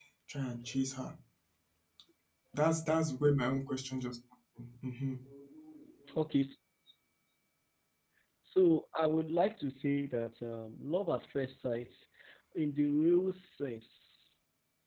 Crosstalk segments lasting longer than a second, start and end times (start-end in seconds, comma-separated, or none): none